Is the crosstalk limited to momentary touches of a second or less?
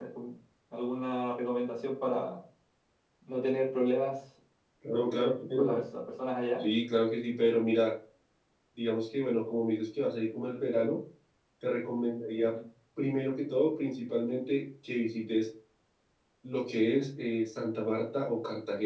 Yes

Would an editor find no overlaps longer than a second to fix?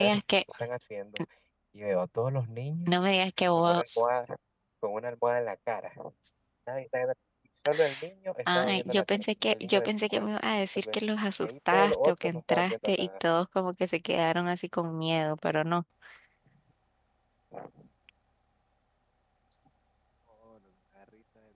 No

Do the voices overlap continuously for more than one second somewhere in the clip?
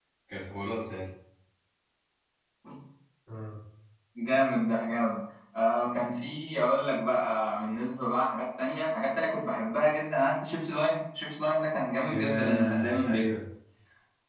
Yes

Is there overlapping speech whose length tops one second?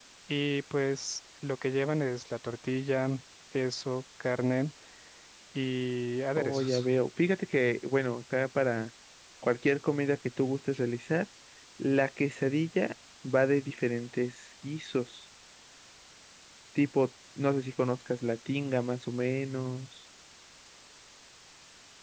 No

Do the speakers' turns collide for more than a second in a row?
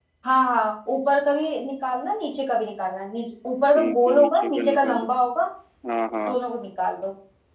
Yes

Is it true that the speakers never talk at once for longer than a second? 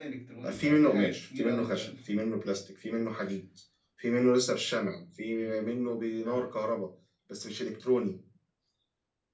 No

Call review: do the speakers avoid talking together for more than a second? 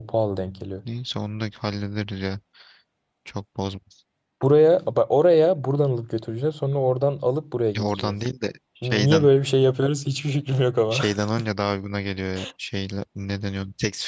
Yes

